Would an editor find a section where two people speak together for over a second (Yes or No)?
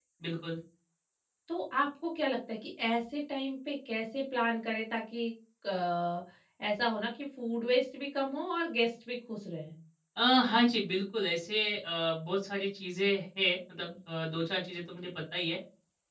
No